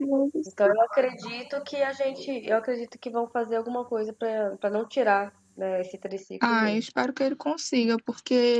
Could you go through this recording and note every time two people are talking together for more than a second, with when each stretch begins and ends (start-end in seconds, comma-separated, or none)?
none